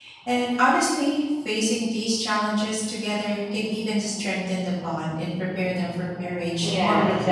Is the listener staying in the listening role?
No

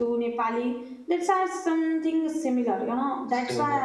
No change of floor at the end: Yes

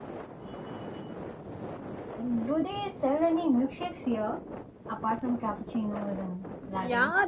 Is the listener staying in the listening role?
No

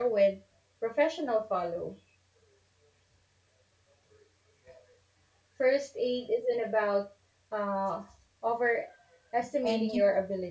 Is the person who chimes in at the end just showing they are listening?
Yes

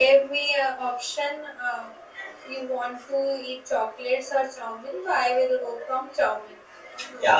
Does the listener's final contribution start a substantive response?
Yes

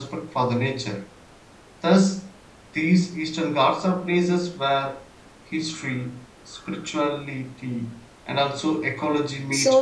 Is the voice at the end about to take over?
Yes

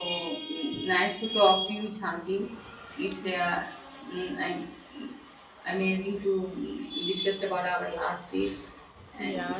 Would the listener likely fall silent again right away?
No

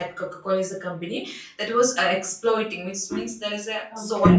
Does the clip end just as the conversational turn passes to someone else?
Yes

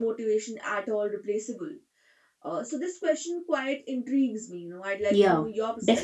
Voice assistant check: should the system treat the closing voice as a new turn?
Yes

